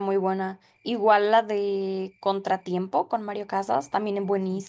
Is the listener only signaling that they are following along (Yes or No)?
Yes